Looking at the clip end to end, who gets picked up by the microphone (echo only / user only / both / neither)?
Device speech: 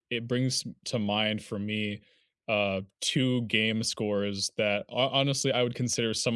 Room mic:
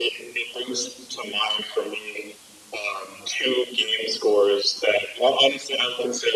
echo only